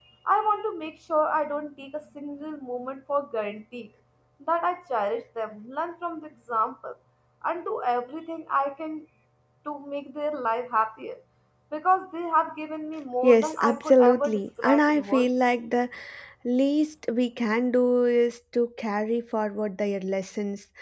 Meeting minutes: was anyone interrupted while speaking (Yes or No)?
Yes